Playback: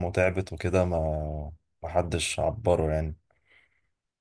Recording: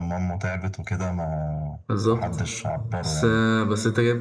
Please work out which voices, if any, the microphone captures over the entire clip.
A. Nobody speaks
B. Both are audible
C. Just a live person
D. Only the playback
B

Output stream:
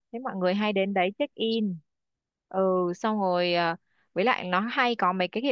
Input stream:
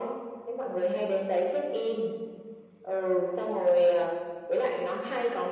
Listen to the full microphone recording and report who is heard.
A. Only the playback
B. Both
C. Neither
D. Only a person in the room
A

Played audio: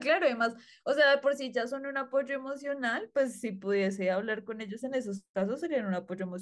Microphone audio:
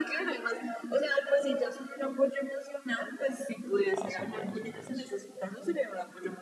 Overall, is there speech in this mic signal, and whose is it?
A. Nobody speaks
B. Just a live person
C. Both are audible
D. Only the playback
C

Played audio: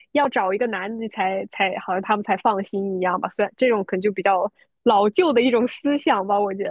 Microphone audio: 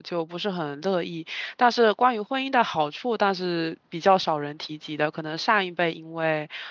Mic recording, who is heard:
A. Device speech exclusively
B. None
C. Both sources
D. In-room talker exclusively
D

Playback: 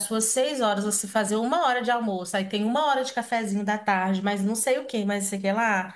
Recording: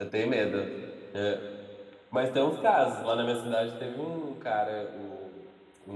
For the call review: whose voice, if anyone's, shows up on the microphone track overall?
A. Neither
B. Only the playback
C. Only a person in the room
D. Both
C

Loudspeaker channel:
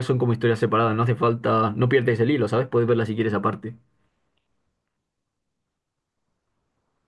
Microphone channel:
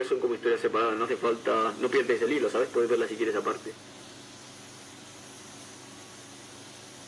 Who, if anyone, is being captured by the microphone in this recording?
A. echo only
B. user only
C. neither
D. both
A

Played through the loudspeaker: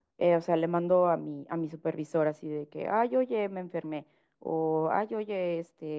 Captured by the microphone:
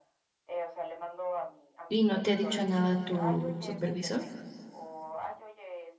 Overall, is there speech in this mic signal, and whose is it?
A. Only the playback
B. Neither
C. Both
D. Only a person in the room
C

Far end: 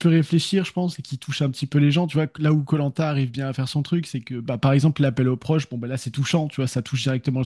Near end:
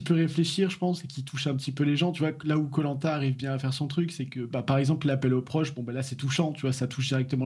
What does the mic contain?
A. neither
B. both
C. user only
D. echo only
D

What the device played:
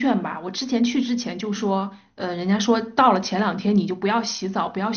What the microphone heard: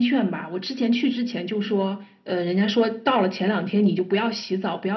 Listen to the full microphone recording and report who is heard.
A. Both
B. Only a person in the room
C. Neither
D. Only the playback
D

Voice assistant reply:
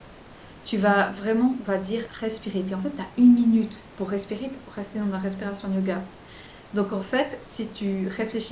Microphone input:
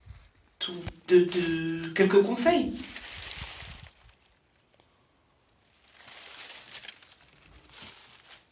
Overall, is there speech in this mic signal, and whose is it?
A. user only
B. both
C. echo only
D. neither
A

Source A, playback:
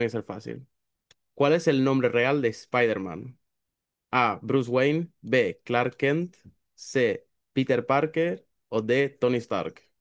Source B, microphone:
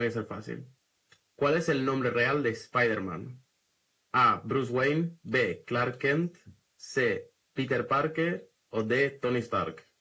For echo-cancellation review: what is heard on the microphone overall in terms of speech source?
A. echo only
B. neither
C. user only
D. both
A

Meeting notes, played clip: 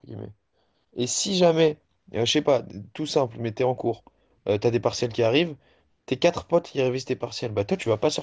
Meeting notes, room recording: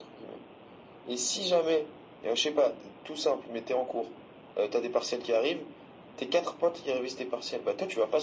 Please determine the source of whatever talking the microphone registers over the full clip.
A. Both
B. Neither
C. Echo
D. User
C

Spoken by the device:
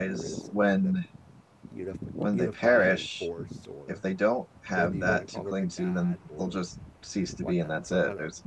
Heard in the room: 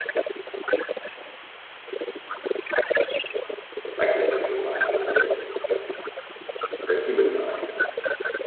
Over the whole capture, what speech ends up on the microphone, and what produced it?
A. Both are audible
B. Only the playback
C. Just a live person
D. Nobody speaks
A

